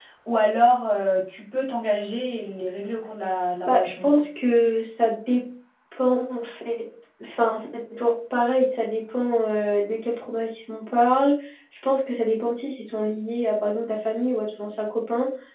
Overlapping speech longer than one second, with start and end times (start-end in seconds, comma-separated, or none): none